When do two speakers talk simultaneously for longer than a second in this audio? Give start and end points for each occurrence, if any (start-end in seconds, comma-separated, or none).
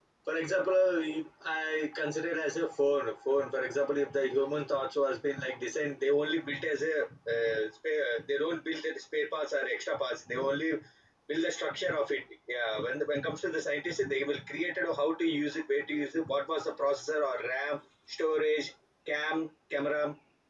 none